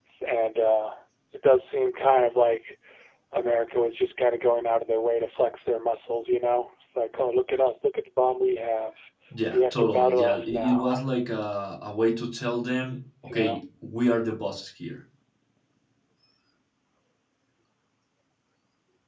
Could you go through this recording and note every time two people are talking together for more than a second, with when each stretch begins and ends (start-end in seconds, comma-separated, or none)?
9.5-10.9